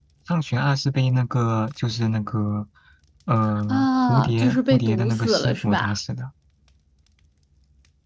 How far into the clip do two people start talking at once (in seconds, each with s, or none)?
3.7 s